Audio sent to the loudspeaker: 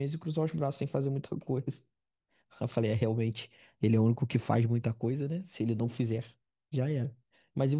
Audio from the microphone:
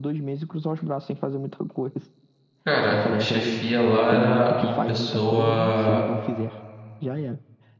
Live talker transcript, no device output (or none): Cara, a chefia lá era uma pessoa